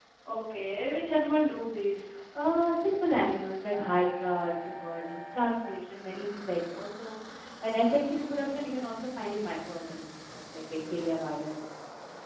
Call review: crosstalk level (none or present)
none